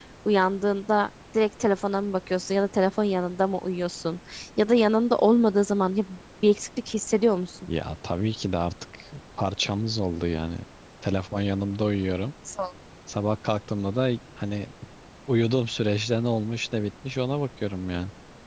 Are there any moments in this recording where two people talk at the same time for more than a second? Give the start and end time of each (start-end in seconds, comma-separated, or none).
none